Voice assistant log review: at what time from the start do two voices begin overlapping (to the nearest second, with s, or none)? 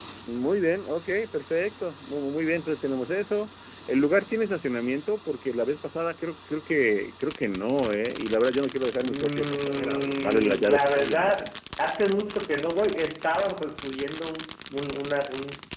9 s